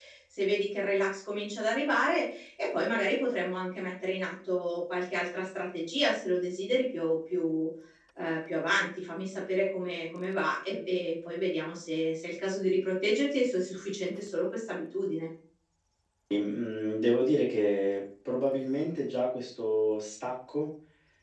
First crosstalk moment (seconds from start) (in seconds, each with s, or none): none